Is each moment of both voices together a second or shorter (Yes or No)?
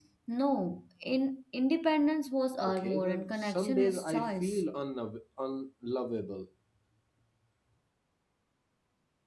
No